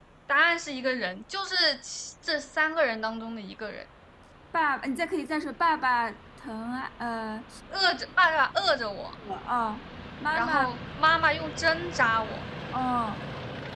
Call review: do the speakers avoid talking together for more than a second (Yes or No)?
Yes